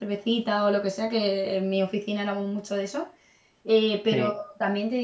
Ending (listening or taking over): listening